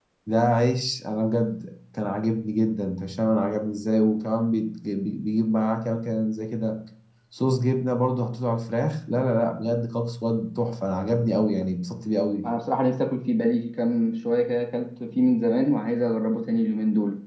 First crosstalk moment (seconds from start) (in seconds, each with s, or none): none